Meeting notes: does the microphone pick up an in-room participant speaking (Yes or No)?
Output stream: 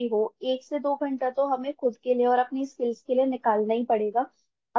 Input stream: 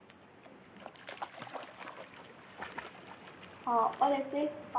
Yes